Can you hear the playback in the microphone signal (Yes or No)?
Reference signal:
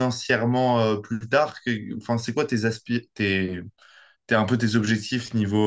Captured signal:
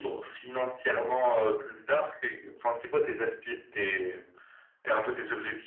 Yes